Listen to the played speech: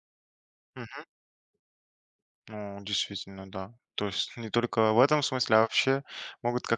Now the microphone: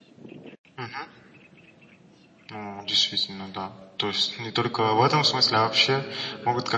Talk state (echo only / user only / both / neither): both